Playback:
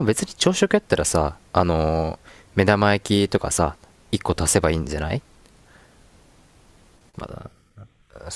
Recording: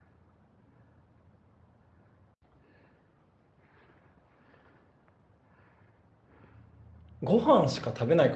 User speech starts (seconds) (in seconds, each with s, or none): 7.2 s